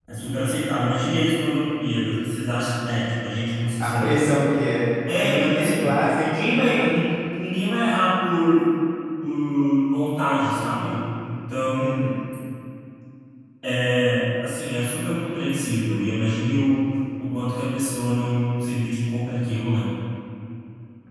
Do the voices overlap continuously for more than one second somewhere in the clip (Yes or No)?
Yes